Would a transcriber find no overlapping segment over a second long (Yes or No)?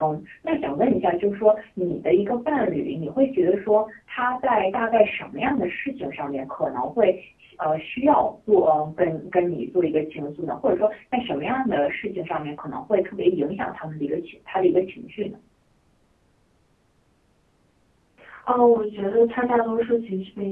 Yes